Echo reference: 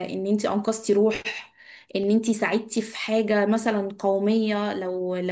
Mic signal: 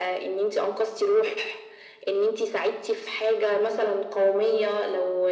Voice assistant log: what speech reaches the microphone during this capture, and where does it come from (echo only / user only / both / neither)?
echo only